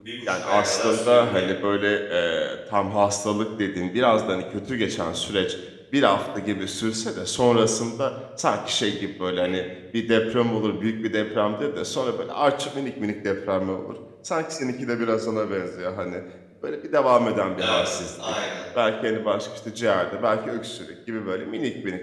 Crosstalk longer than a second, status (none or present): present